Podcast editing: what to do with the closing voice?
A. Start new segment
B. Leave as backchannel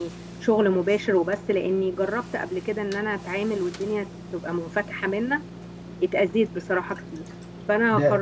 A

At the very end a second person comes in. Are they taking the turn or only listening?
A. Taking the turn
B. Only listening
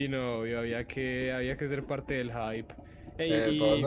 A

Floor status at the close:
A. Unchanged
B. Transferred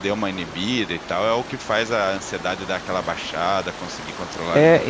B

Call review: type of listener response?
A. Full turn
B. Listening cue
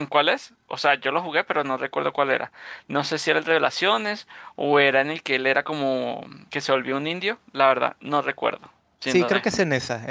A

